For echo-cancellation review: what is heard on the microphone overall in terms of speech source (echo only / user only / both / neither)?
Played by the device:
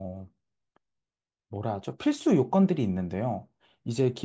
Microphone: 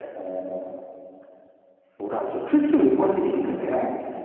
echo only